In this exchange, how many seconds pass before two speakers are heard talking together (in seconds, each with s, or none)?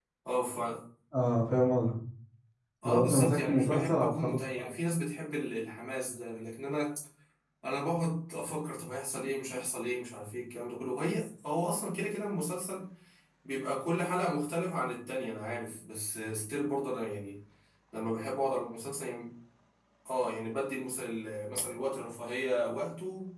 2.8 s